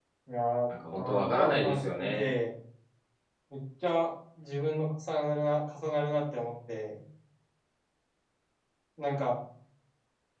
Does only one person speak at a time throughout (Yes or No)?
No